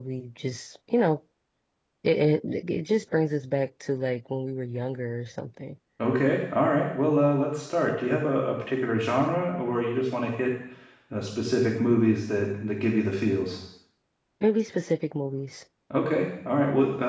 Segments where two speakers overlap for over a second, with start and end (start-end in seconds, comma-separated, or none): none